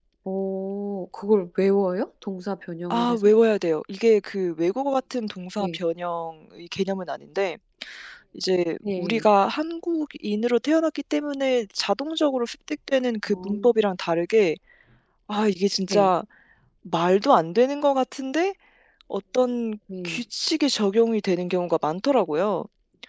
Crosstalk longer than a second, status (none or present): none